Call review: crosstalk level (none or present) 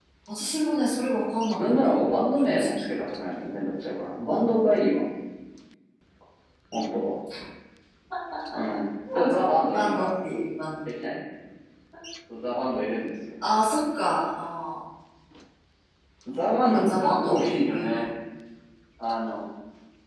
present